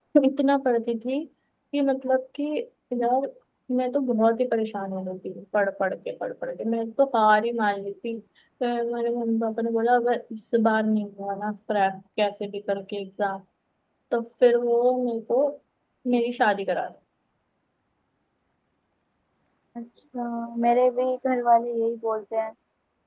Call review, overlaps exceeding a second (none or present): none